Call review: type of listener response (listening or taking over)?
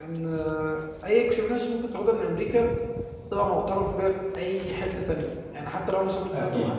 listening